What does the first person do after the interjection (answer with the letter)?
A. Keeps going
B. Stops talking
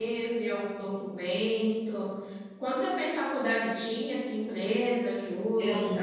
B